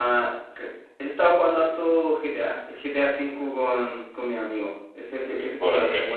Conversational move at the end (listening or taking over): listening